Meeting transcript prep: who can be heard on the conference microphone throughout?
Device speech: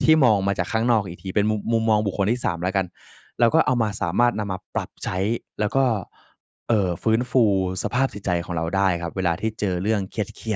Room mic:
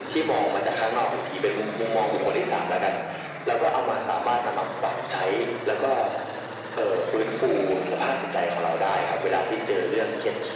echo only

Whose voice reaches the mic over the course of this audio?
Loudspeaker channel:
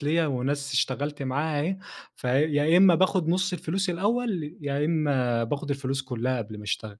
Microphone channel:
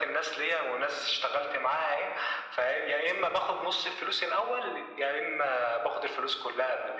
echo only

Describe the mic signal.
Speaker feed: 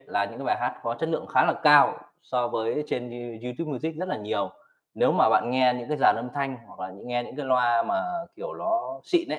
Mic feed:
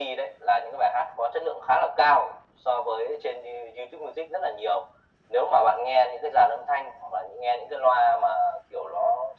echo only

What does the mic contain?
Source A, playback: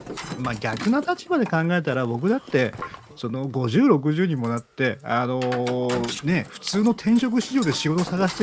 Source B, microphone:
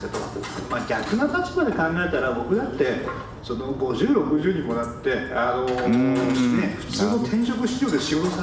both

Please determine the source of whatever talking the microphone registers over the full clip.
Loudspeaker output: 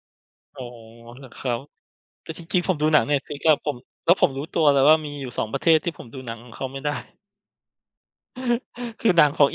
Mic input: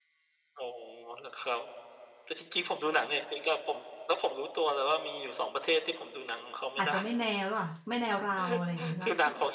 both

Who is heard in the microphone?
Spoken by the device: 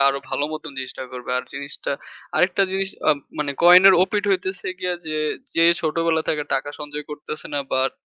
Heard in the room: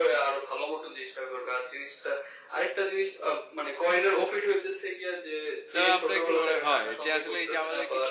both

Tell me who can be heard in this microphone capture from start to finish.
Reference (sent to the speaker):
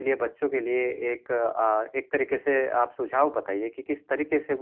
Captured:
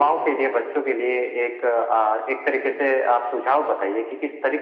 echo only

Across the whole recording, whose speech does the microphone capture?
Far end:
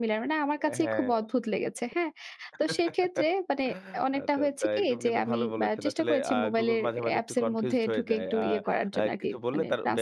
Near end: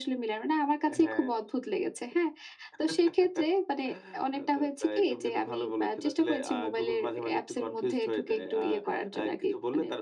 echo only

